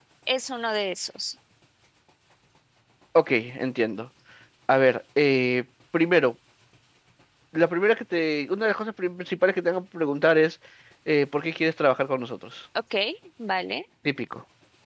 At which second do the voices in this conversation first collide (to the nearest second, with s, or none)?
none